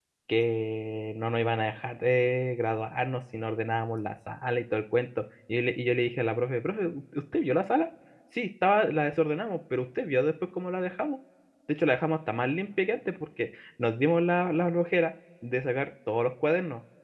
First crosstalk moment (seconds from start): none

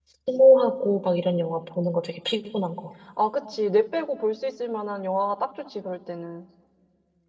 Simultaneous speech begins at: none

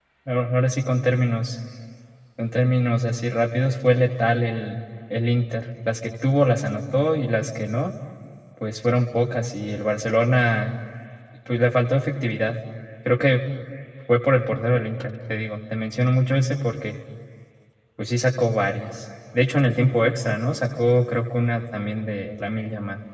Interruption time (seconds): none

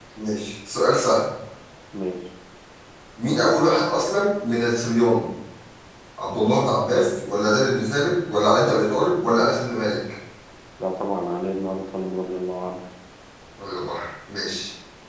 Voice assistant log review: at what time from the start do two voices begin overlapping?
none

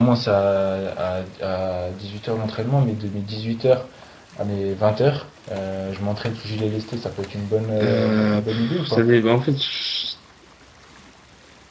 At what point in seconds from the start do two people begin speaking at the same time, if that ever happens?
7.8 s

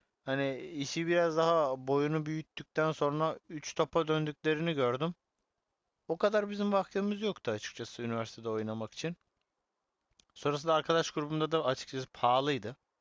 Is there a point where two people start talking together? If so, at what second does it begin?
none

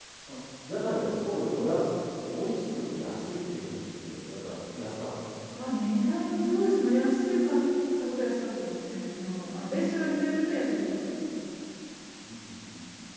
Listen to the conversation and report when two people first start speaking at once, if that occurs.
none

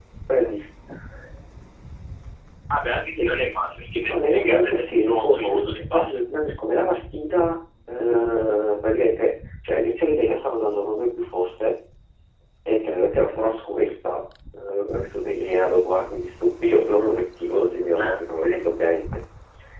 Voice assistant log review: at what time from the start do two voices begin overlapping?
4.0 s

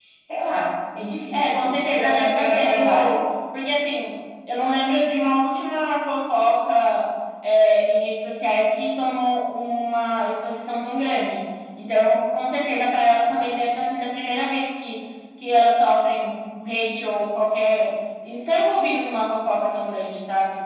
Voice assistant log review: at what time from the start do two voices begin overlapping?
1.3 s

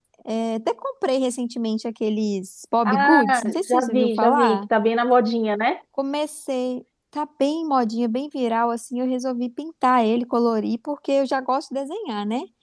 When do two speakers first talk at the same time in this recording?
2.8 s

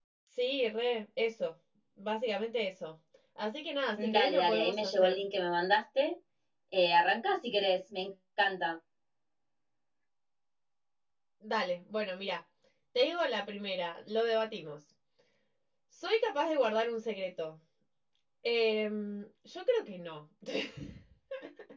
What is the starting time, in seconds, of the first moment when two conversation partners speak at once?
4.0 s

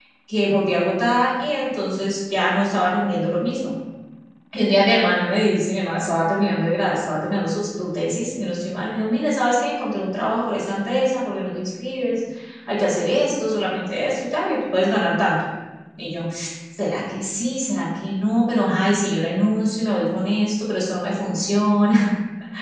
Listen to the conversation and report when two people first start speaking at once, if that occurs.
none

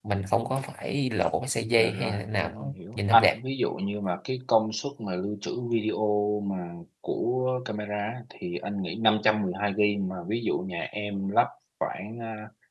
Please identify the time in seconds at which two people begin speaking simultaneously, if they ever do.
1.8 s

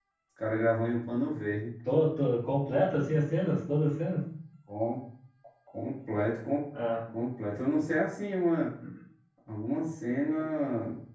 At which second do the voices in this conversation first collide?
none

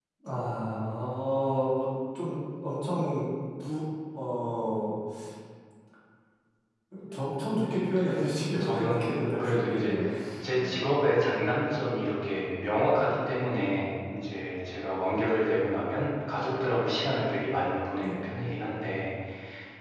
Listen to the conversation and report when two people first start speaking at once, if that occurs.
8.6 s

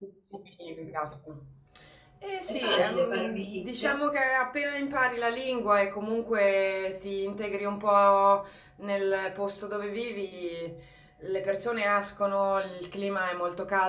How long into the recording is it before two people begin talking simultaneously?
2.5 s

